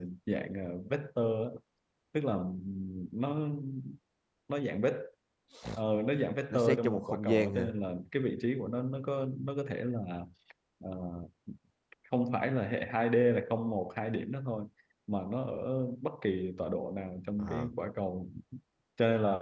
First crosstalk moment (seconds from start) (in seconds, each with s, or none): 6.5 s